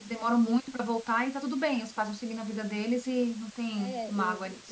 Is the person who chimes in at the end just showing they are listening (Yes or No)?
No